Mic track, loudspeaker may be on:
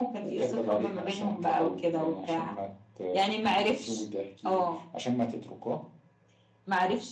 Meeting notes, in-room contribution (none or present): none